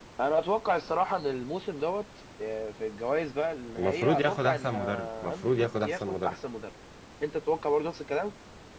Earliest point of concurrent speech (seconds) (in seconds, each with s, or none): 3.8 s